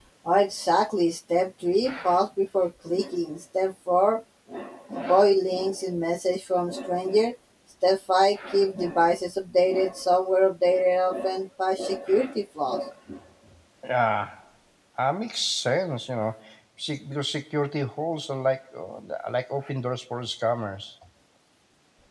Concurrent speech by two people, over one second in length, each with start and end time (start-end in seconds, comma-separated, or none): none